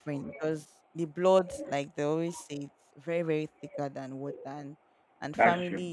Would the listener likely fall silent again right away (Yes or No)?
Yes